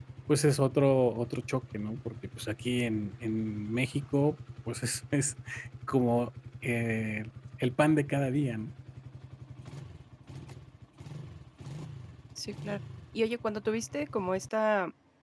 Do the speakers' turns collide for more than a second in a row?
No

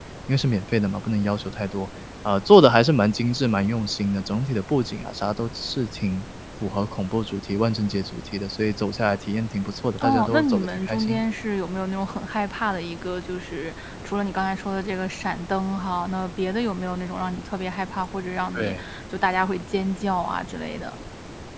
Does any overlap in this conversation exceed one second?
Yes, from 10.0 s

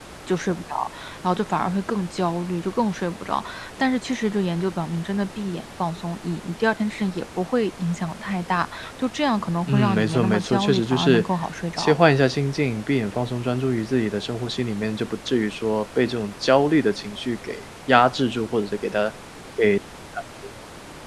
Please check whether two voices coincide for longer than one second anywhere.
Yes, from 9.7 s

